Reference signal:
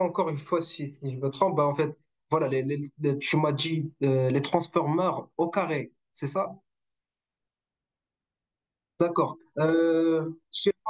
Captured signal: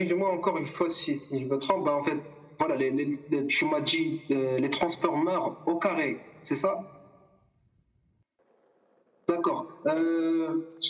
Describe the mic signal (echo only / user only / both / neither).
echo only